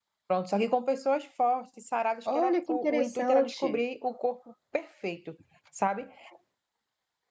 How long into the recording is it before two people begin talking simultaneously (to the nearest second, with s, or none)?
2 s